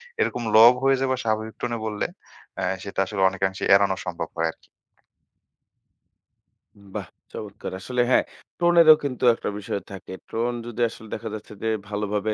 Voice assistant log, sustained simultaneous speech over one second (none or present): none